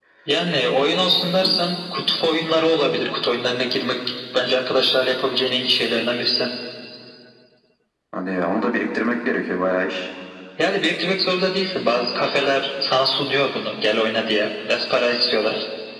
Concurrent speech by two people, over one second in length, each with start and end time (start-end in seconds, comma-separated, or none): none